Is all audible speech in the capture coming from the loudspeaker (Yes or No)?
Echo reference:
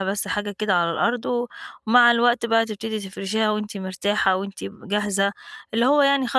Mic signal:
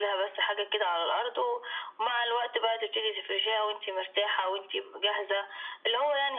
Yes